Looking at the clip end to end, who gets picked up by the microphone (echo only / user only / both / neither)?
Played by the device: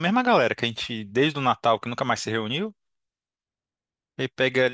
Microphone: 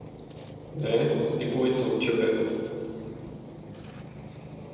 user only